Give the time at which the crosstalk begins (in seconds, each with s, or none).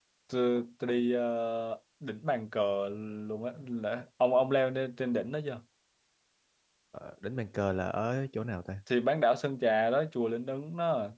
none